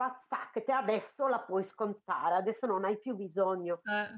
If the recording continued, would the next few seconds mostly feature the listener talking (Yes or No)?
No